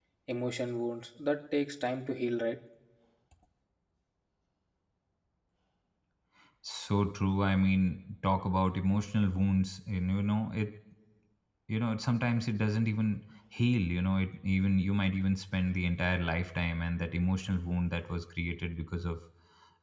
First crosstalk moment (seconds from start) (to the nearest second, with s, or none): none